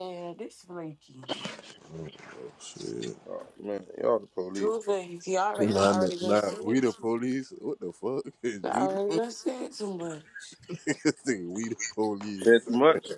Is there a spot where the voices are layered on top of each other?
Yes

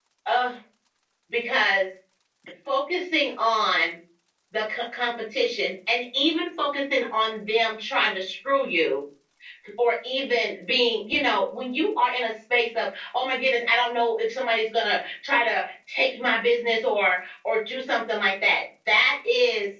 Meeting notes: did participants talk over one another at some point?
No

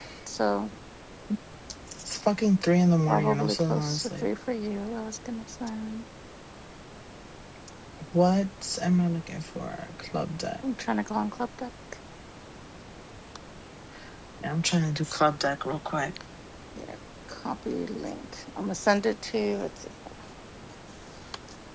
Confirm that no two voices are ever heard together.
No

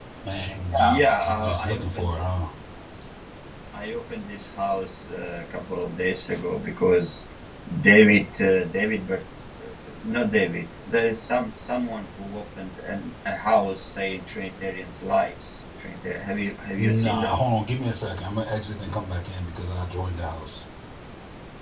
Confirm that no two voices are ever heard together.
No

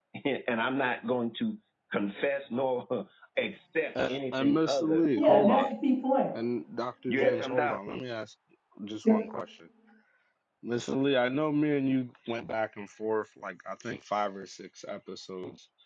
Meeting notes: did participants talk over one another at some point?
Yes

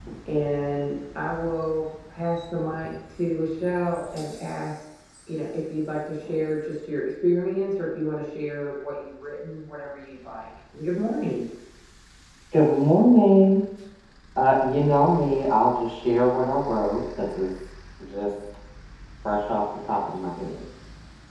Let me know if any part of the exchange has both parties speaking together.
No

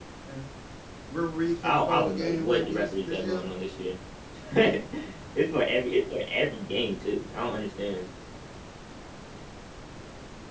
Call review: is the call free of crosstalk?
No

